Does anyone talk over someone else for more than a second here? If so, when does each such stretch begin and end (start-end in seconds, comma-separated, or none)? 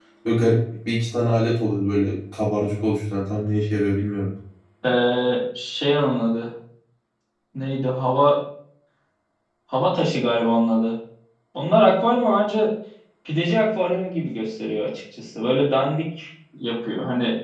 none